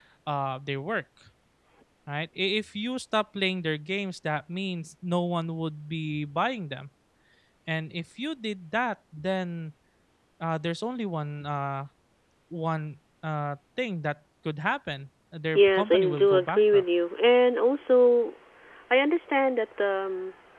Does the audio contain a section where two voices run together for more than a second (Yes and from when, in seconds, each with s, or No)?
Yes, from 15.5 s